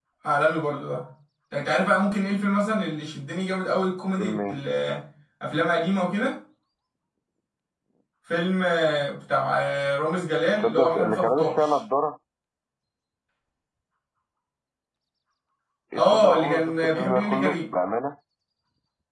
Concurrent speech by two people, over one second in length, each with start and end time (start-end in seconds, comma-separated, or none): 10.5-11.8, 15.9-17.6